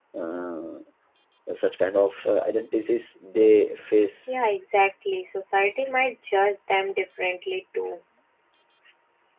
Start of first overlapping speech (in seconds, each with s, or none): none